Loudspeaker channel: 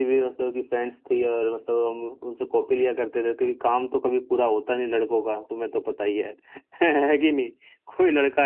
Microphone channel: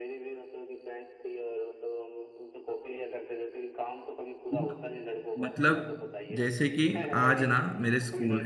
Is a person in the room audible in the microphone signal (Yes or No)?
Yes